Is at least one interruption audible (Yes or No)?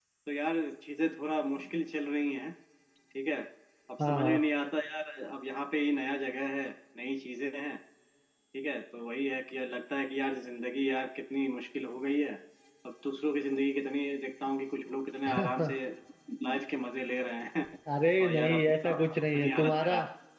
Yes